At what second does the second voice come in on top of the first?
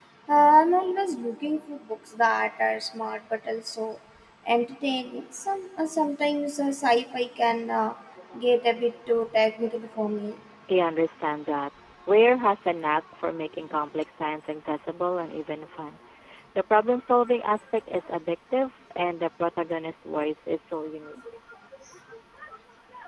none

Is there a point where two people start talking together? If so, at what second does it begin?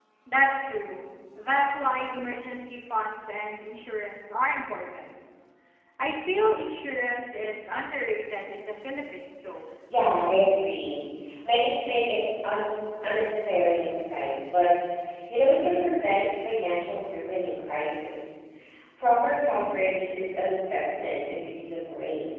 none

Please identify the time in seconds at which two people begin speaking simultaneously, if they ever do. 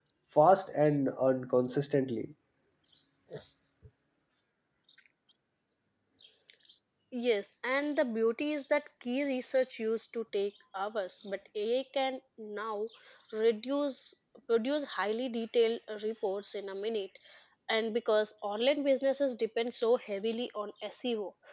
none

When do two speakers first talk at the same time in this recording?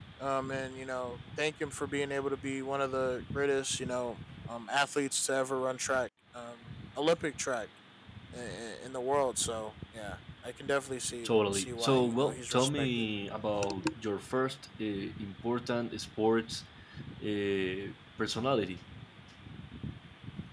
11.2 s

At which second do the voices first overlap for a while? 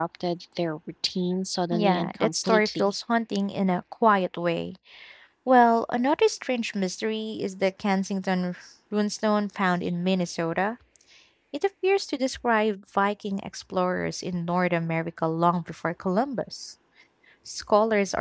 1.7 s

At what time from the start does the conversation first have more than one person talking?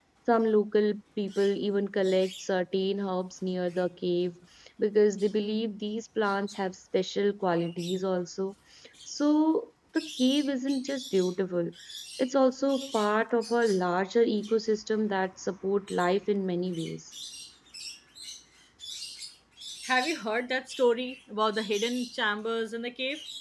none

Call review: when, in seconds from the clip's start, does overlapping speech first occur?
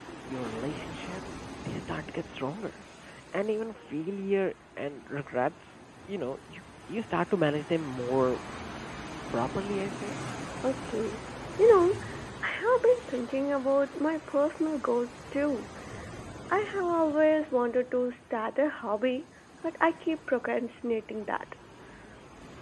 none

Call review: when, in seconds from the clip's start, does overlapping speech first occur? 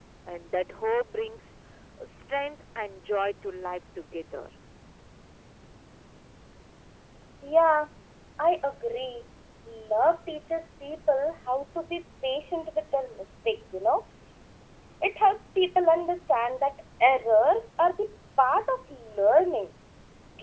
none

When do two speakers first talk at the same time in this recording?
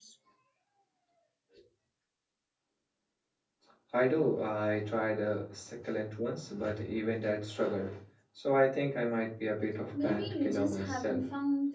9.9 s

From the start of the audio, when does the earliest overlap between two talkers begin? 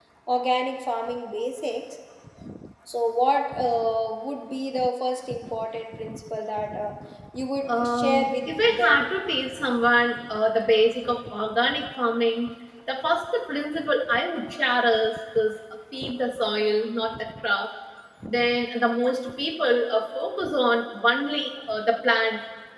7.6 s

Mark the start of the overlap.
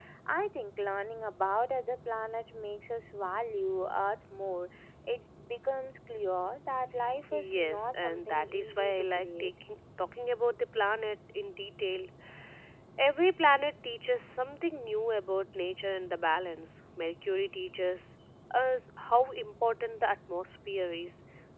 7.3 s

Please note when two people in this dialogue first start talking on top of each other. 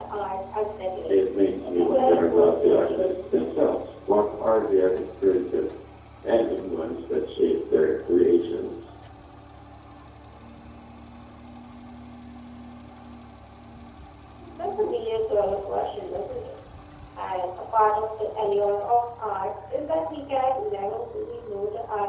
1.6 s

